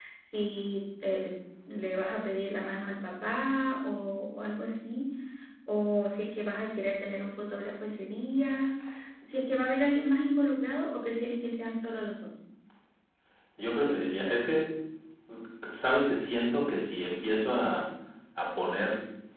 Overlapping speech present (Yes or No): No